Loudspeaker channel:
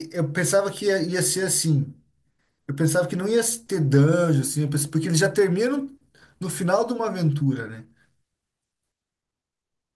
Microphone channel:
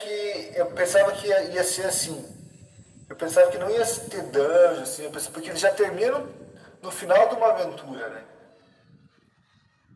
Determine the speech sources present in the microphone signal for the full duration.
echo only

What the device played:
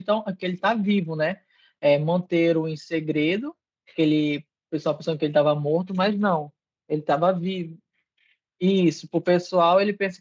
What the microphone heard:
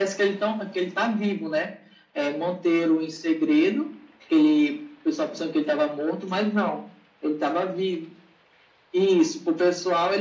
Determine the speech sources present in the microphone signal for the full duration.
echo only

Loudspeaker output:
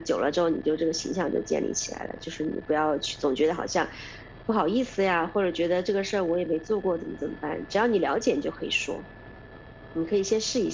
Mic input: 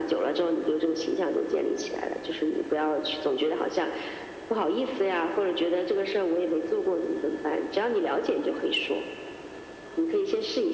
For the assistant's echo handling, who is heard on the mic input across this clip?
echo only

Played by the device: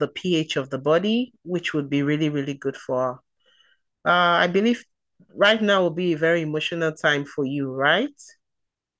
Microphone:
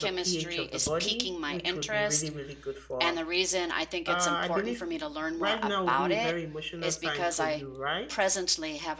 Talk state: both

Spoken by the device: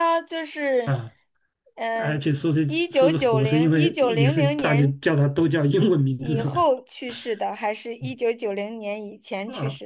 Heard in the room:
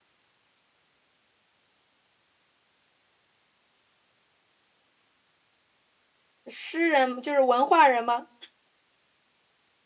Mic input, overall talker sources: user only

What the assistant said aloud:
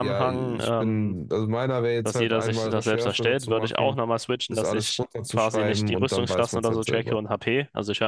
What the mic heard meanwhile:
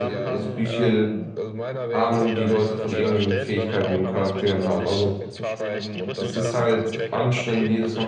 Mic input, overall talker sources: both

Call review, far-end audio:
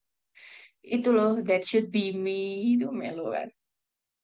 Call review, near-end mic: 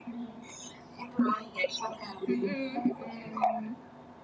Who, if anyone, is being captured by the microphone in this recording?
both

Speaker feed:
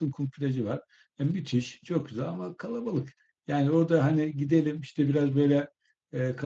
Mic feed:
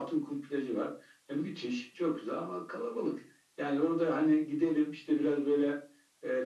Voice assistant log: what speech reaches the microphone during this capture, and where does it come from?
echo only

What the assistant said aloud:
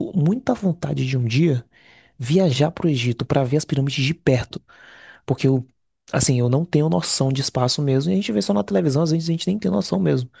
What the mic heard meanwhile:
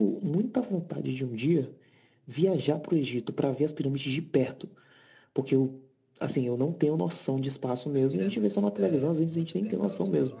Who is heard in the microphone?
both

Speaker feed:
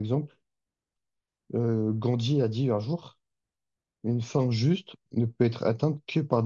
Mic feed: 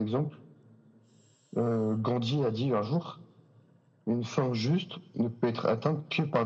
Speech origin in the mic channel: echo only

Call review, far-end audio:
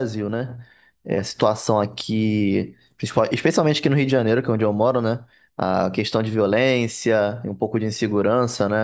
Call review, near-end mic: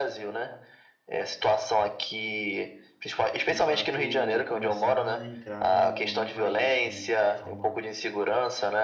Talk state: both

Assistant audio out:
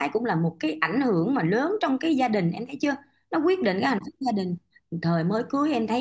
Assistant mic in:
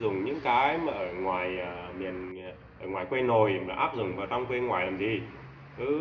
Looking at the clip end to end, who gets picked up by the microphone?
user only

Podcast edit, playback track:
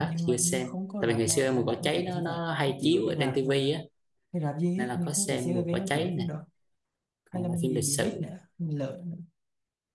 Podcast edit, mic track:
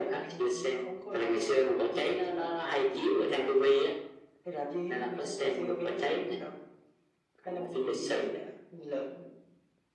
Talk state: echo only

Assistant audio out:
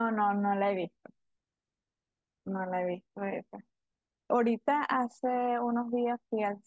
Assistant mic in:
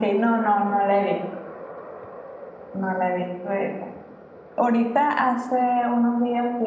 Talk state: echo only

